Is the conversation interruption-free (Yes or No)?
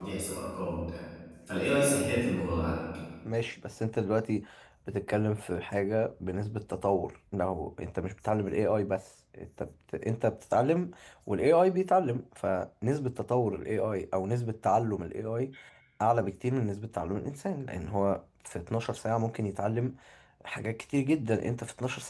Yes